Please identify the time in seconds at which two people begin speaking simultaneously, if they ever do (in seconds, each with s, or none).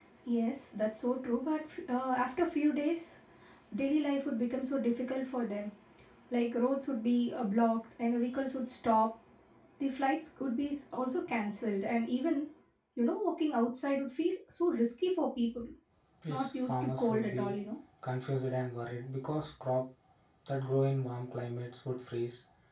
16.3 s